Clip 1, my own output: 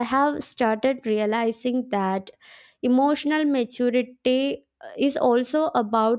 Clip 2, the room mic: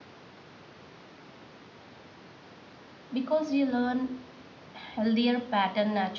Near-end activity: present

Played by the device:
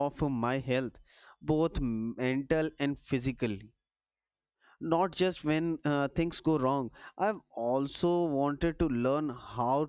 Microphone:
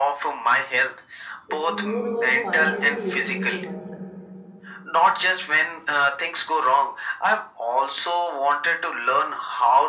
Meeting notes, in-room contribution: present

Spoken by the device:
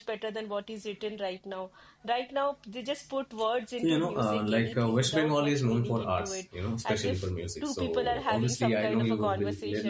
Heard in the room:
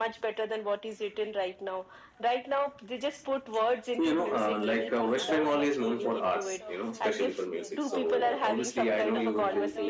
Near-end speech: present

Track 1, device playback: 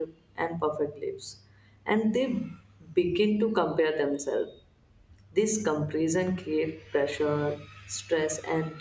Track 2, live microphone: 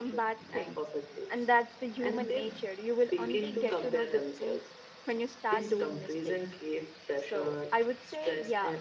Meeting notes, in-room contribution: present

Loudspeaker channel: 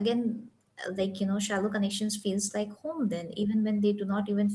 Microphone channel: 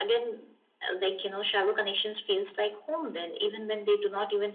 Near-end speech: none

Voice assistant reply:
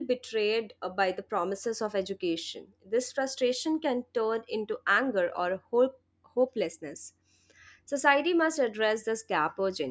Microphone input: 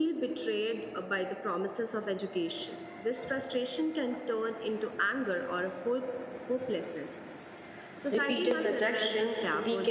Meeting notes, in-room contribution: present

